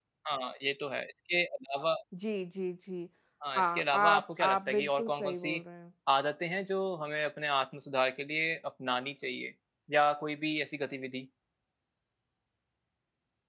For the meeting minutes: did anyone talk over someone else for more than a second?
Yes, from 3.6 s

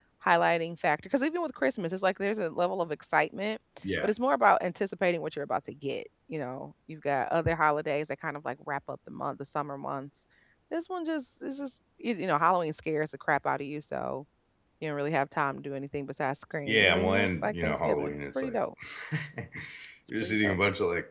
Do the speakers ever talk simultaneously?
Yes, from 16.6 s

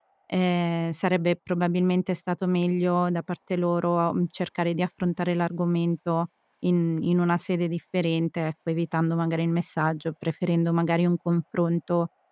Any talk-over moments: No

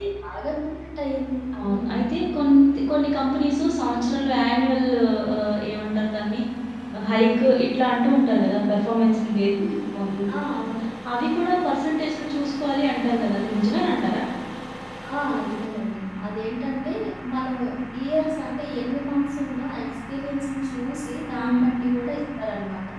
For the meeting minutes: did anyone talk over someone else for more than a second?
No

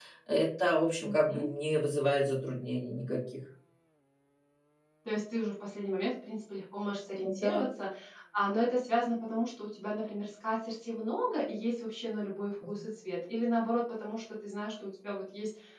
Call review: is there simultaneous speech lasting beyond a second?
No

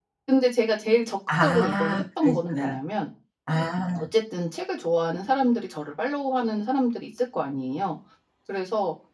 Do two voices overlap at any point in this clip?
Yes, from 1.3 s

